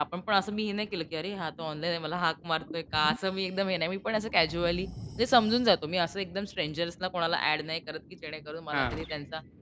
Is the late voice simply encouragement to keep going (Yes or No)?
Yes